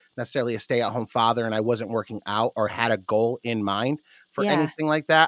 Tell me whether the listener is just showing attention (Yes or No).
Yes